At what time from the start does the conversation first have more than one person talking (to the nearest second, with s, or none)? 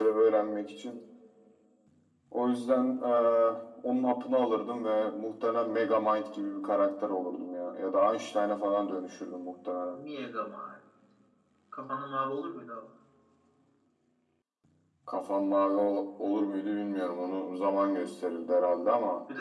none